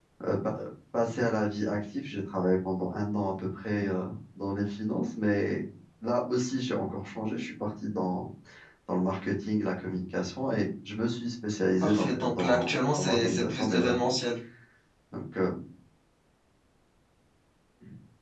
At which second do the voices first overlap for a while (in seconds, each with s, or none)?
11.8 s